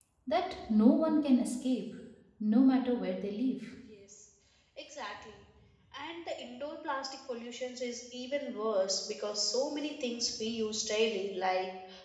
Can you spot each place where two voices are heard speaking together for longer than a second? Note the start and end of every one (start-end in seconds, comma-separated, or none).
none